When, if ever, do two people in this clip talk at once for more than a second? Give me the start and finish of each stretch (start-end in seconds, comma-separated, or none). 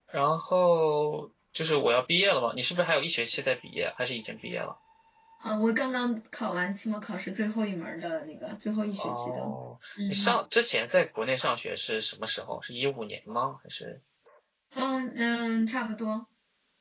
none